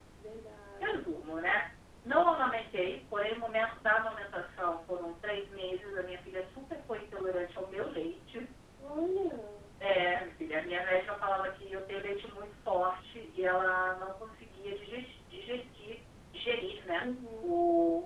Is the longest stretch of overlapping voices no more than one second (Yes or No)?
Yes